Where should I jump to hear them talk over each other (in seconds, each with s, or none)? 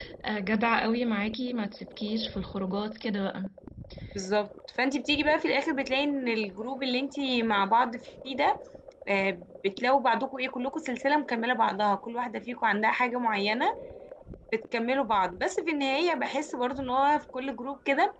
none